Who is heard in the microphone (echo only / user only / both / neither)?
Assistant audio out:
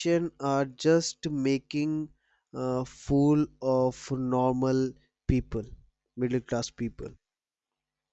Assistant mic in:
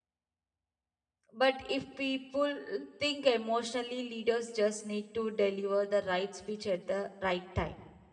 user only